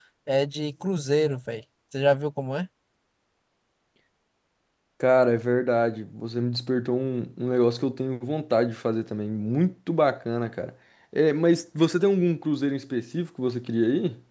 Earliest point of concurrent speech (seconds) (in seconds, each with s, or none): none